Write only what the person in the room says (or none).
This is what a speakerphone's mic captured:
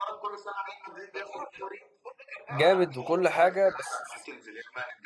جامد وكل حاجه بس